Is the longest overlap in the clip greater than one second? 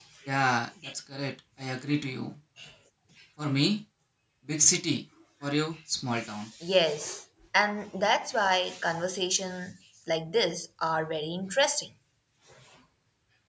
No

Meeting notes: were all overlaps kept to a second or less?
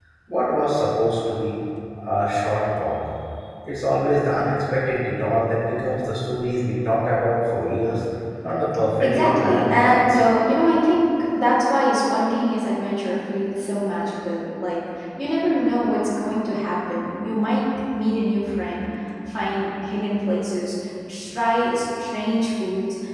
No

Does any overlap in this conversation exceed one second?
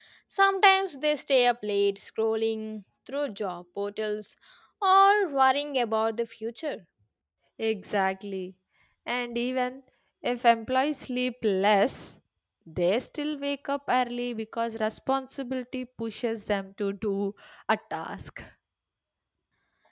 No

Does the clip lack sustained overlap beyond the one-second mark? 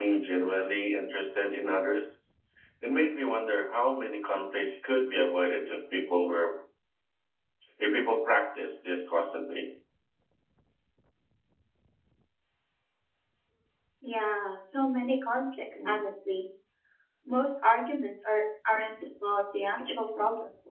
Yes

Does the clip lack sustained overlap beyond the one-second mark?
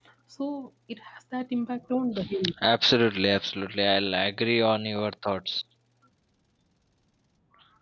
Yes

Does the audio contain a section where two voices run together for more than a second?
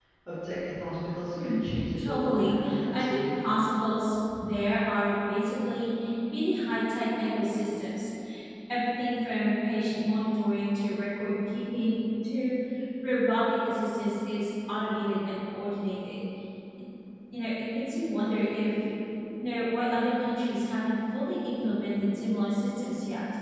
Yes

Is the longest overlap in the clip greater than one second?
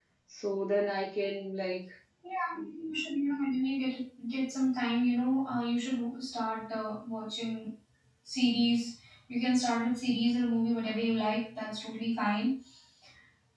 No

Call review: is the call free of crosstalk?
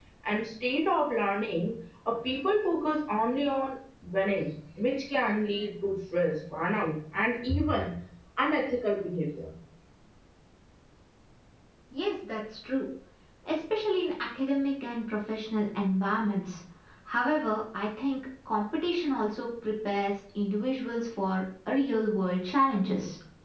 Yes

